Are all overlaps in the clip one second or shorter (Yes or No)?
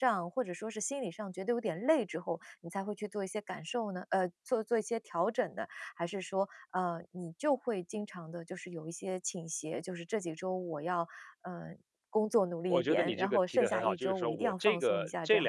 No